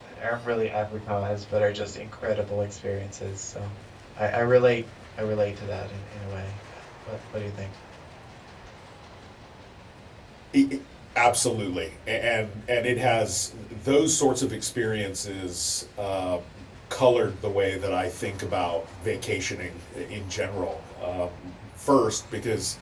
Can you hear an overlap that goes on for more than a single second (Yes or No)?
No